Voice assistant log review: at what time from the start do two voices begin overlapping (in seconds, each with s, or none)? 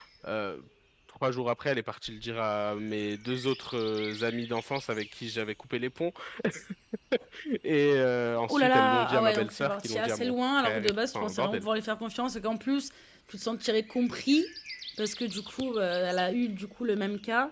8.5 s